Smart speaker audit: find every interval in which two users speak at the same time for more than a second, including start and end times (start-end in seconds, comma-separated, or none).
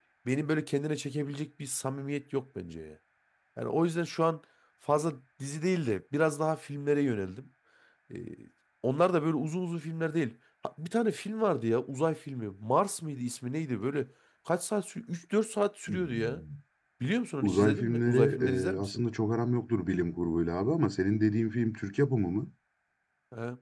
17.4-19.0